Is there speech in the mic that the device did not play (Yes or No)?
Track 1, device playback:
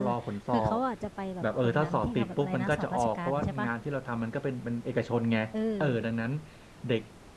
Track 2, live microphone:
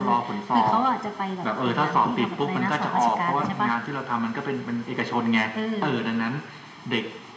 No